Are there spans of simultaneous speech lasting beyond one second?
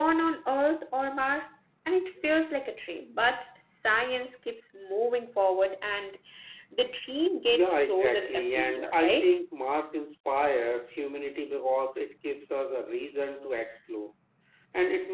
Yes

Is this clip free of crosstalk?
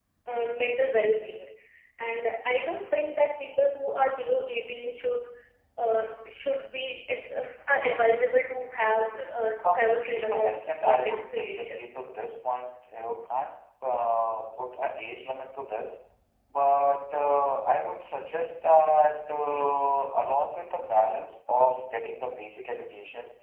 No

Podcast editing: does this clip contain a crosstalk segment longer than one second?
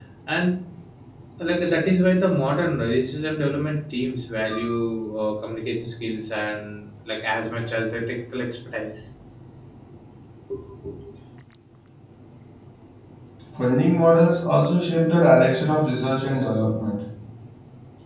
No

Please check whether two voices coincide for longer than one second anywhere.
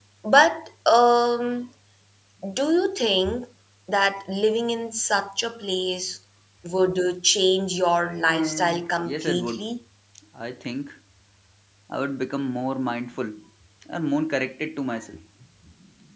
Yes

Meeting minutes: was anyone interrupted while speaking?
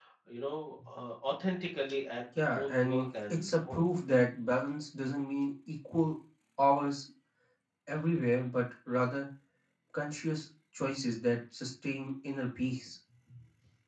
Yes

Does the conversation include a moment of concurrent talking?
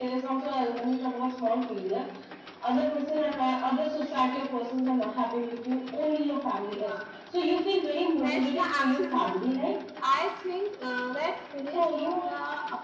Yes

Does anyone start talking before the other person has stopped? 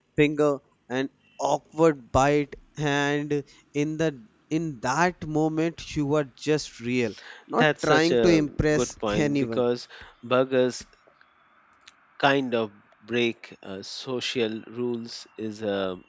Yes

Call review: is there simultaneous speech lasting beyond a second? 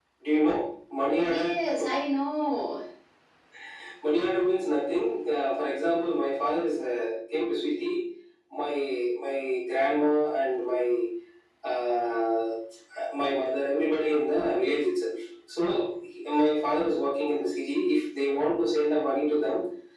No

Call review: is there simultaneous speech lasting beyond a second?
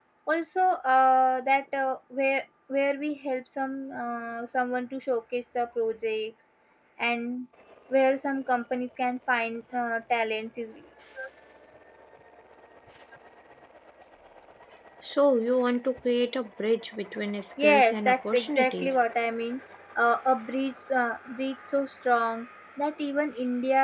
Yes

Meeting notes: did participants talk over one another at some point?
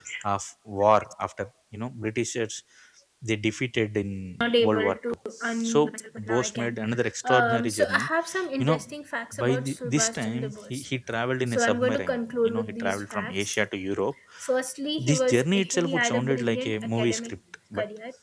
Yes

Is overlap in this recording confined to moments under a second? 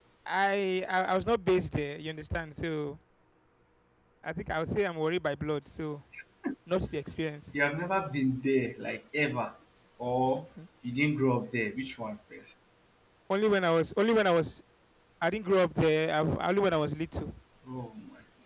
Yes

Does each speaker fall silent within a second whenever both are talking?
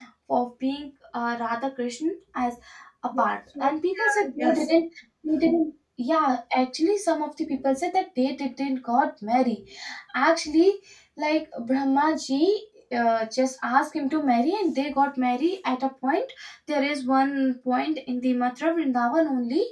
No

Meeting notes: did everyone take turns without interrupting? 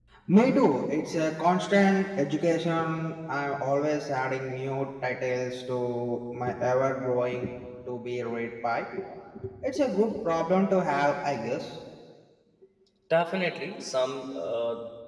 Yes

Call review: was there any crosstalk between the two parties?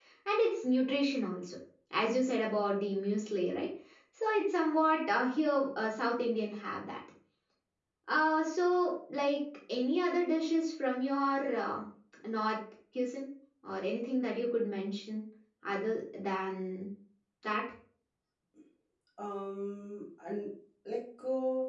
No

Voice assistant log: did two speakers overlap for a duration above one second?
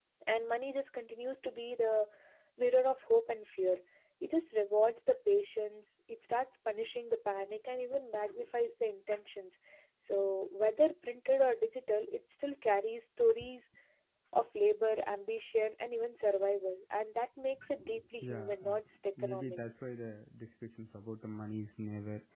No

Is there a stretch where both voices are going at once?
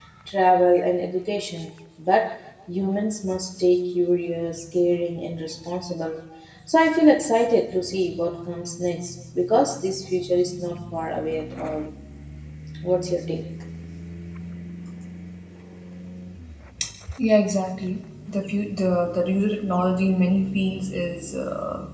No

